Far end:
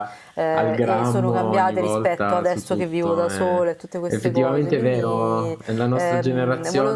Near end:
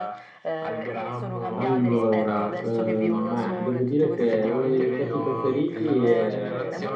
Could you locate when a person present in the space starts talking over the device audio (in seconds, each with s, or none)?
1.6 s